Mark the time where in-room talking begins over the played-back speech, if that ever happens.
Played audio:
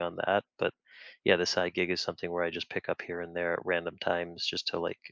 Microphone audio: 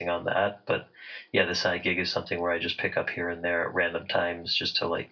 none

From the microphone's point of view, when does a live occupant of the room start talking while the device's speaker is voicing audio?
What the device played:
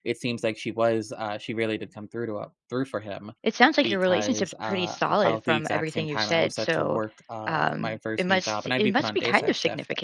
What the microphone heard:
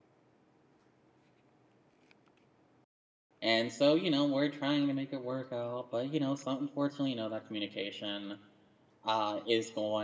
3.4 s

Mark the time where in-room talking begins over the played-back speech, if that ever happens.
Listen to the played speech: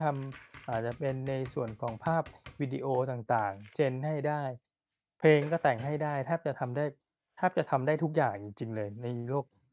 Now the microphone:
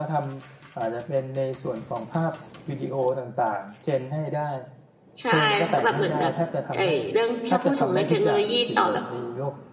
5.2 s

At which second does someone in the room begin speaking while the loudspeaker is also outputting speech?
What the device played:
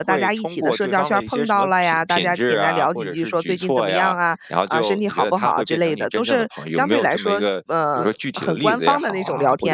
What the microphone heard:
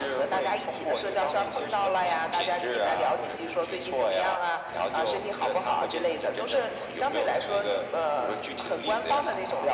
none

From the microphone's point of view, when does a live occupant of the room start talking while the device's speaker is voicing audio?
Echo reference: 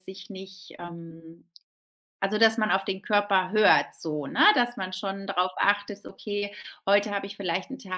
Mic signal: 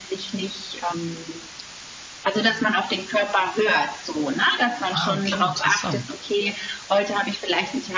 4.9 s

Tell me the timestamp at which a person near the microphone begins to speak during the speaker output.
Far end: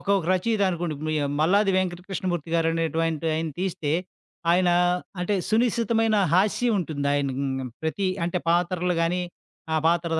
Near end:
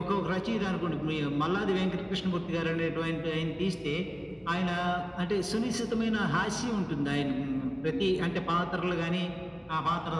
none

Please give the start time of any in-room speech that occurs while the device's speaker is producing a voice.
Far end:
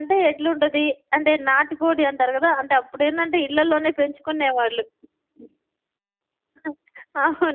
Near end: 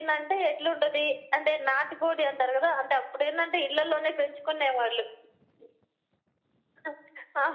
none

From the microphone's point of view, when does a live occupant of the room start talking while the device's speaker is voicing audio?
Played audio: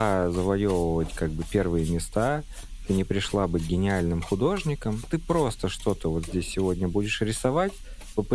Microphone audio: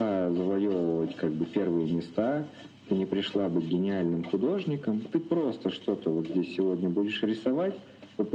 none

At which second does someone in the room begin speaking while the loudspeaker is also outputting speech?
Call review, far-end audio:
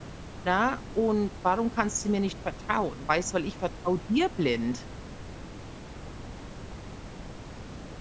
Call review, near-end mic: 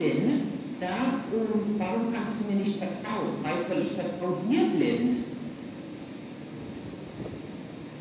none

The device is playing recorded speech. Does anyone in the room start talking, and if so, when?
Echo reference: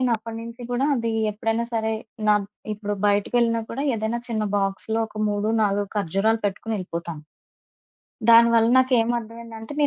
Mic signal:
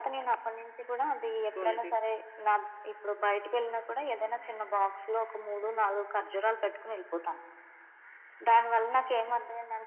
1.4 s

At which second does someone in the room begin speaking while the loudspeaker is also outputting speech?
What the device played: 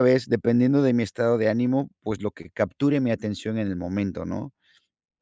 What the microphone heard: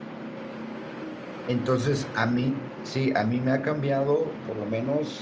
1.4 s

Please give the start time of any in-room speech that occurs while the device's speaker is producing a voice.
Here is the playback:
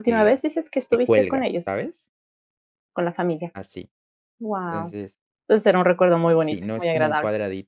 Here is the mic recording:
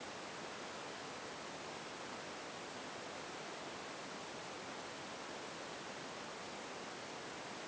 none

